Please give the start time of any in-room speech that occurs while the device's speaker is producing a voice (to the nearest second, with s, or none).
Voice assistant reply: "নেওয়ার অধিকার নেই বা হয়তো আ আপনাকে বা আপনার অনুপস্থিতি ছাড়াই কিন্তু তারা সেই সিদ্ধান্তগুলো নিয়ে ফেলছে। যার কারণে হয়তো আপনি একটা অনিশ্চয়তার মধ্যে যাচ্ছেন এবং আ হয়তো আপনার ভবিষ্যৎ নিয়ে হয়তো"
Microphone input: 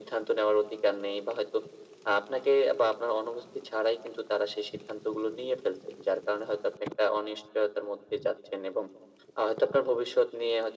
none